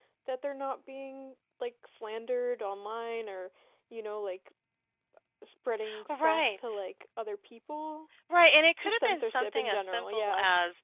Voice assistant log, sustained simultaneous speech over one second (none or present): present